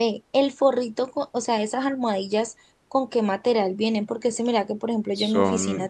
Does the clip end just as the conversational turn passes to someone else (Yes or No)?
No